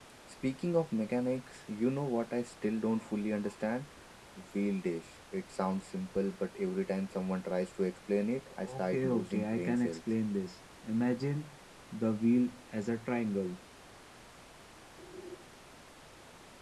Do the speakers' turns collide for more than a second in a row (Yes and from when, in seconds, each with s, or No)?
Yes, from 8.7 s